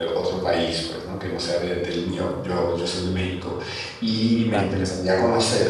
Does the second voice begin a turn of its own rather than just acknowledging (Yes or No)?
No